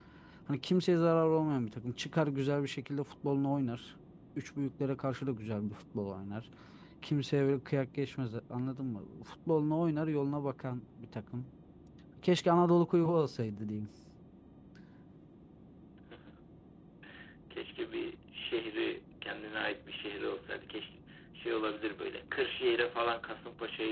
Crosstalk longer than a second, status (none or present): none